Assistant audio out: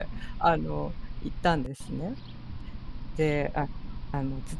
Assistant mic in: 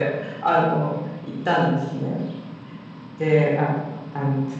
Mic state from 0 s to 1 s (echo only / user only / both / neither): echo only